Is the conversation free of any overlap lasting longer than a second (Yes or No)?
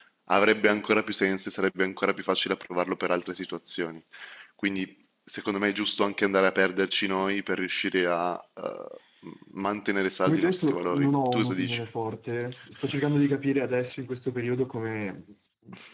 No